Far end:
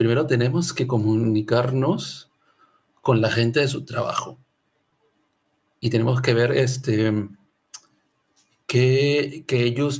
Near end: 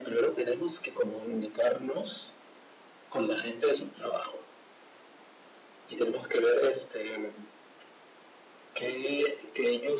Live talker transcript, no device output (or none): none